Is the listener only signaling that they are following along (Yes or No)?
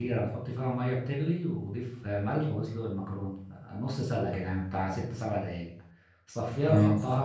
Yes